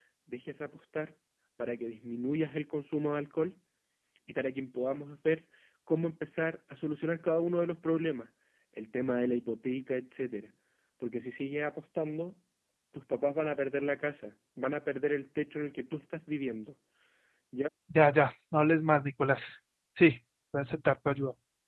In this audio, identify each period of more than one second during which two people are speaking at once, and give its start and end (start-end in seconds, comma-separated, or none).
none